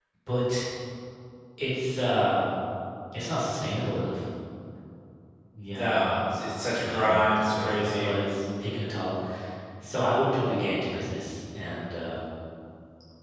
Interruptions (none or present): present